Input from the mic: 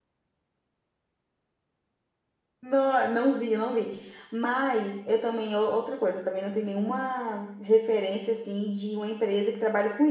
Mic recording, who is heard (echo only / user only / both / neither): user only